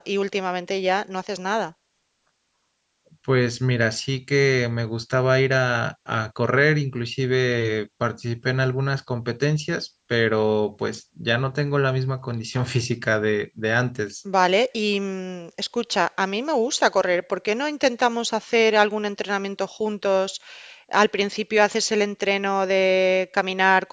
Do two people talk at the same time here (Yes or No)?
No